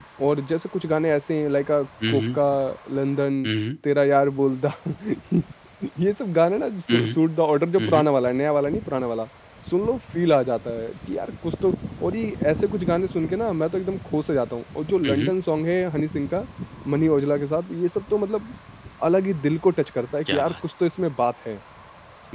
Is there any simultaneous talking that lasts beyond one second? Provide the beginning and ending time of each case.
none

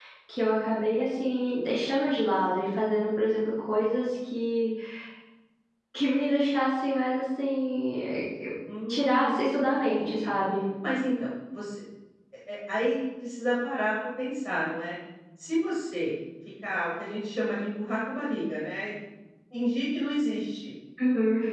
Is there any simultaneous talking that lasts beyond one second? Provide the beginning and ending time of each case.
8.9-10.3

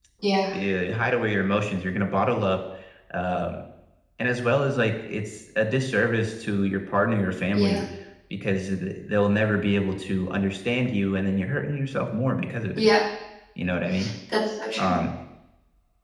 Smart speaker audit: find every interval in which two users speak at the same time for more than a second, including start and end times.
none

